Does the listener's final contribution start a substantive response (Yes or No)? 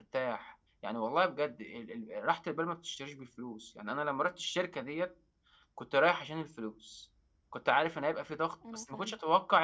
No